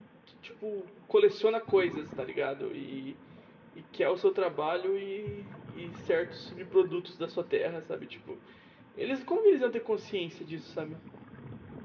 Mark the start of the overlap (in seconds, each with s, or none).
none